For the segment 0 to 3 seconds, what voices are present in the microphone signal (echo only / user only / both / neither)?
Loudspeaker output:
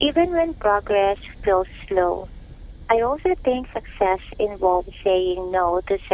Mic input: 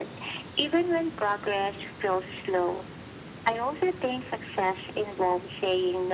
echo only